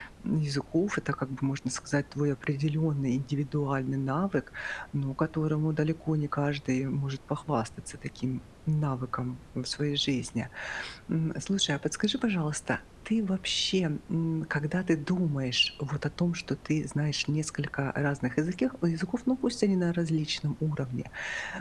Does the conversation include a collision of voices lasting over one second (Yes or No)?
No